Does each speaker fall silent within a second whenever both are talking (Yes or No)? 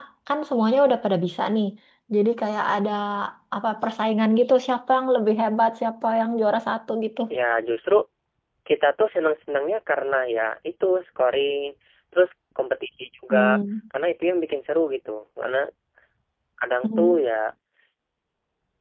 Yes